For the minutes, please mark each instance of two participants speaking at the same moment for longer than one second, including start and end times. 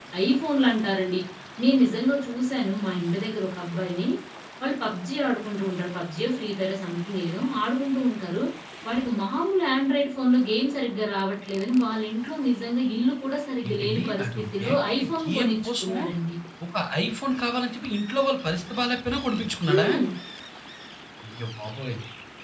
13.7-15.9

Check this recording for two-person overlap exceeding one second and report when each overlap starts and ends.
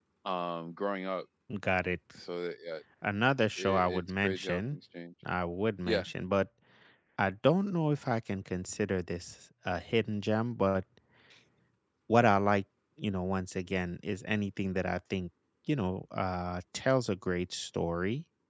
3.6-4.8

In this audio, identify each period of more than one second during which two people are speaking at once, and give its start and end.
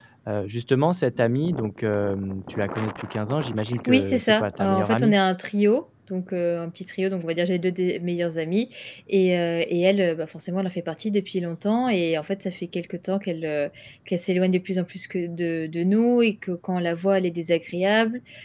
3.9-5.2

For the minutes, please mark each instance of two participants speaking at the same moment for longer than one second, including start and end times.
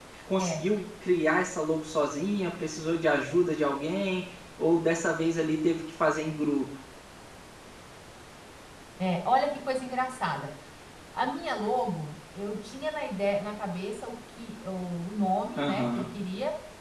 none

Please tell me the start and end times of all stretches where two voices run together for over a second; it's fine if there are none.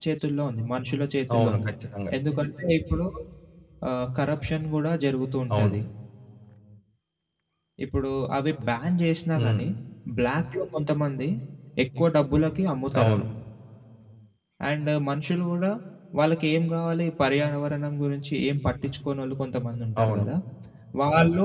none

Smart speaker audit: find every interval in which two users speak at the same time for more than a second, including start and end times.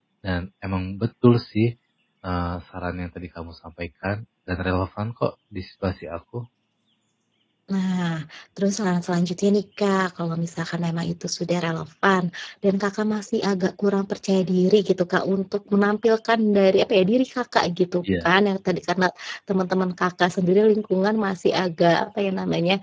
none

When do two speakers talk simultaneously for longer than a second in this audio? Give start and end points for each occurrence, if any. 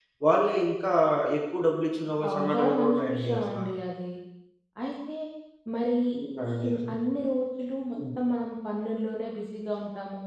2.3-3.6

